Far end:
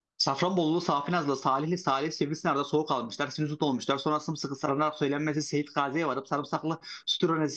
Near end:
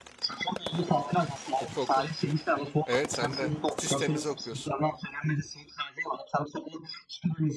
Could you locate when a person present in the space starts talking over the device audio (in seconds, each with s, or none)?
1.6 s